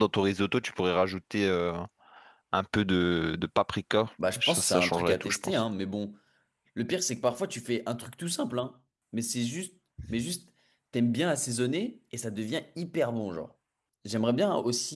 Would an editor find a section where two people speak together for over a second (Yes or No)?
Yes